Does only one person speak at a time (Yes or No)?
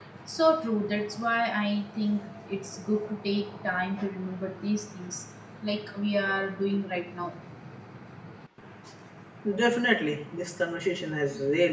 Yes